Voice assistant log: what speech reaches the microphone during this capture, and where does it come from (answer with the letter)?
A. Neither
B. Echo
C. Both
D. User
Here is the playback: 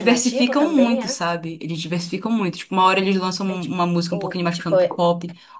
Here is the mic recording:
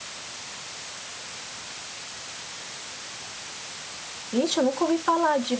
D